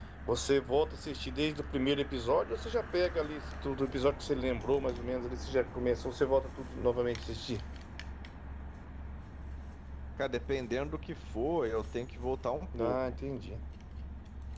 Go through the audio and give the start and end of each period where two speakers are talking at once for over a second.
none

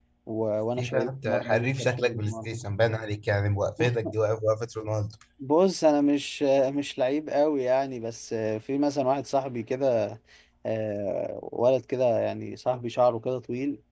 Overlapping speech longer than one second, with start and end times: 0.8-2.6

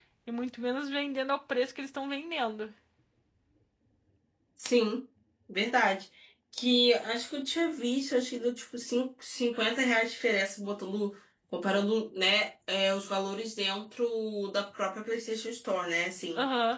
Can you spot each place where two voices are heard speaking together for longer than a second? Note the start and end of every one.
none

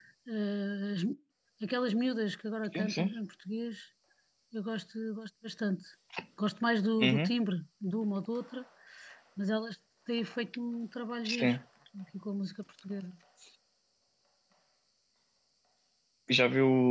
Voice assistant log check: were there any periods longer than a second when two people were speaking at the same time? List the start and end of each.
none

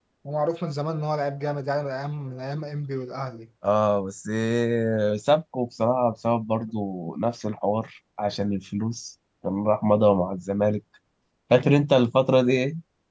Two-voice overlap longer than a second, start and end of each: none

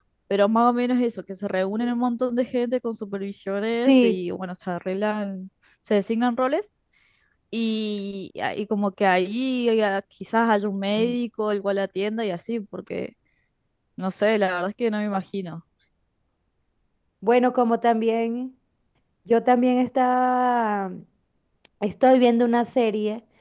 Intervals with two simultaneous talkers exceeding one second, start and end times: none

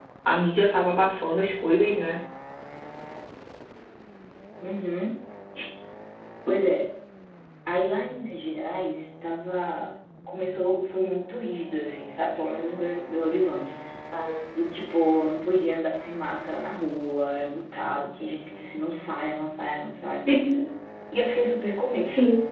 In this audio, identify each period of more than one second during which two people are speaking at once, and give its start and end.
none

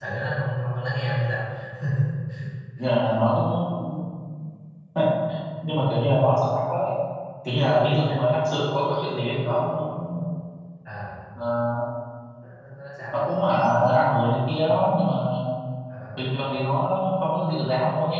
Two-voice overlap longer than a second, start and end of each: none

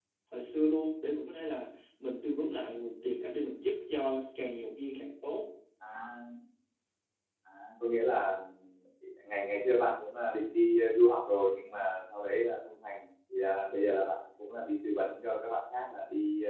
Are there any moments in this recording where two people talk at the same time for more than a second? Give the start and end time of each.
none

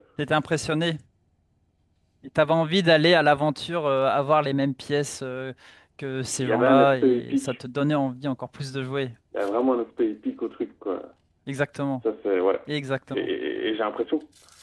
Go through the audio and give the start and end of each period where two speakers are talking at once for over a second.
6.3-7.6

